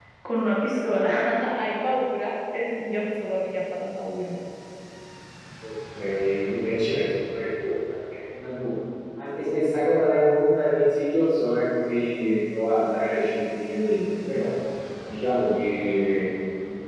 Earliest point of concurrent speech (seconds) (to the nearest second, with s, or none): none